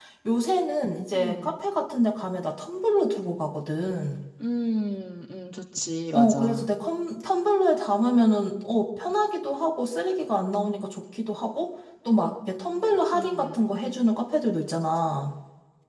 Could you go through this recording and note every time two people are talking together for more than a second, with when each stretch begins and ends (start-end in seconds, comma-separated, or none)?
none